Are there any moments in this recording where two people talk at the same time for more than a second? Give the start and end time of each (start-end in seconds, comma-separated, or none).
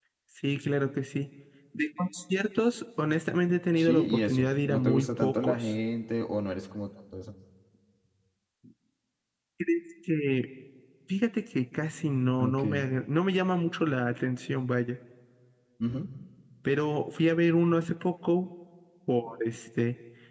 3.8-5.7